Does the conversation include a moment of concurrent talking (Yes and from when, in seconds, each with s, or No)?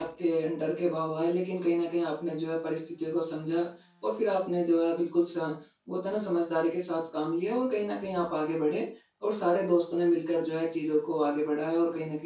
No